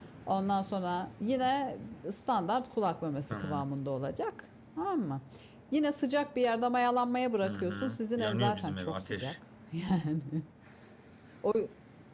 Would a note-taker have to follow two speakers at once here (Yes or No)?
Yes